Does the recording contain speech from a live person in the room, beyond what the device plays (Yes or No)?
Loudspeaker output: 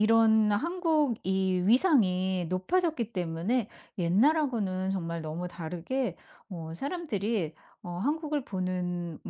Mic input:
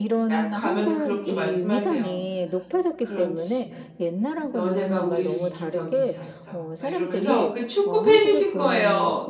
Yes